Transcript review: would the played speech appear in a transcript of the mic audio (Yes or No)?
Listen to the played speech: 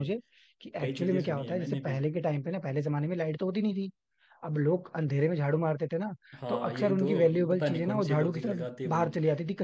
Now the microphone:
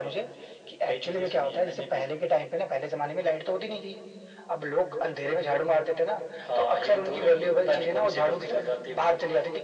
Yes